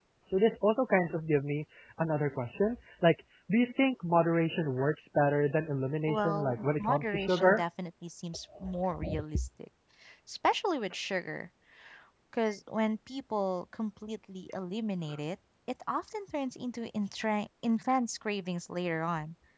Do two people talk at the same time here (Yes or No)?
Yes